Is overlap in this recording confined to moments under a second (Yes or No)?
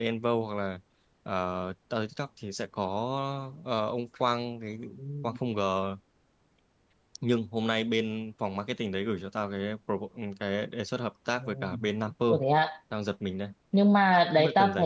Yes